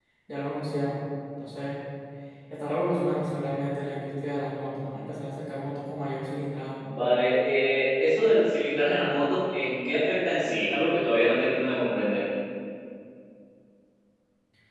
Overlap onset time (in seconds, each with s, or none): none